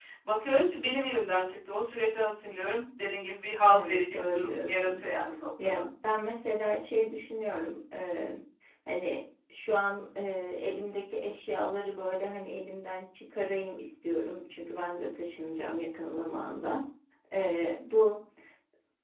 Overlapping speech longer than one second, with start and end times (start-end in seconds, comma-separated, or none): 3.7-5.0